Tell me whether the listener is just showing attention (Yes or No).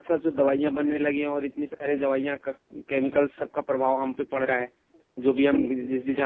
Yes